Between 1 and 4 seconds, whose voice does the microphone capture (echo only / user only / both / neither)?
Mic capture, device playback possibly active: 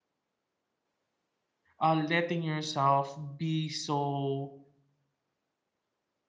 user only